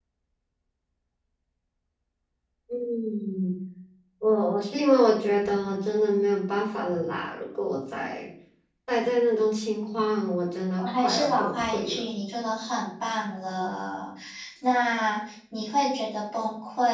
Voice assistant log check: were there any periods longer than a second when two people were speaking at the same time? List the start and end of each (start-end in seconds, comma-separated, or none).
10.8-12.1